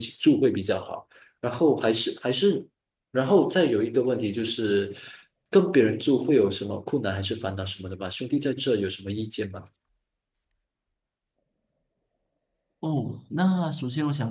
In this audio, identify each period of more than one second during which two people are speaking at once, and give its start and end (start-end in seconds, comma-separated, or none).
none